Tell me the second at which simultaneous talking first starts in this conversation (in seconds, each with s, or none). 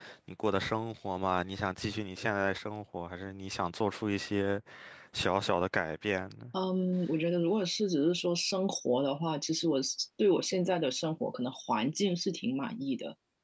none